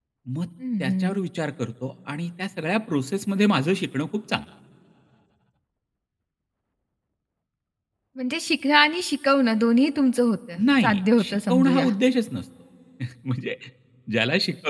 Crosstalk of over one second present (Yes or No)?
Yes